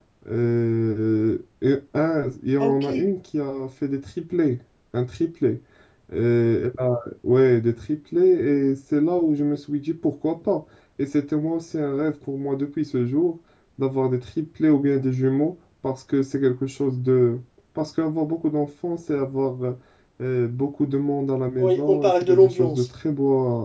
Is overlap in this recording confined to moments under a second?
No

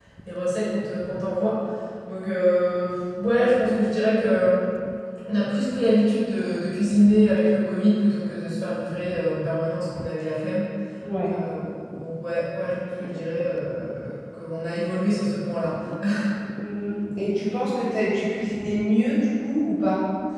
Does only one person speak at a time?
Yes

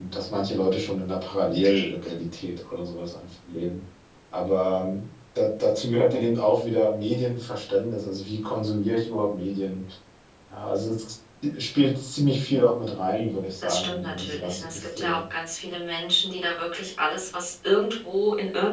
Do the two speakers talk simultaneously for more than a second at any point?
Yes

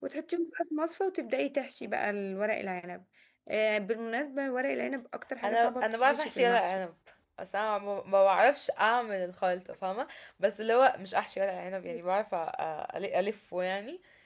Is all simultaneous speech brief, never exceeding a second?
No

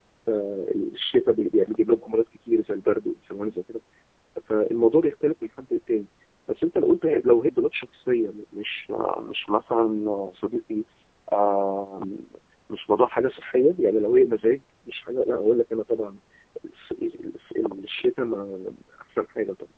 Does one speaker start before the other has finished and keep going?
No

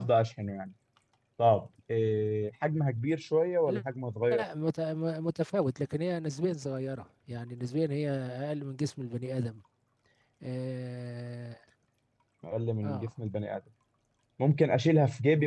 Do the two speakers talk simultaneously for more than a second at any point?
No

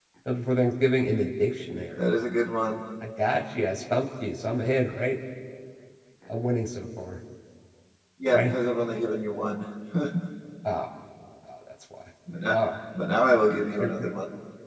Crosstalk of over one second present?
No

